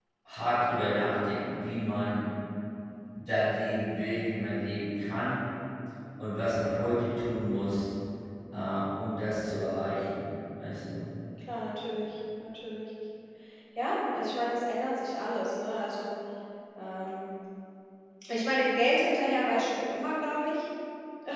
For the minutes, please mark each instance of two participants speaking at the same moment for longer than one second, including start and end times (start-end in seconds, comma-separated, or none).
none